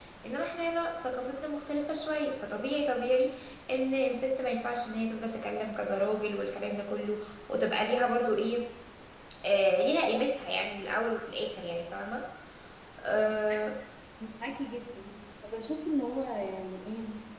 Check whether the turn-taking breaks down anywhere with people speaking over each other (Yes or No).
No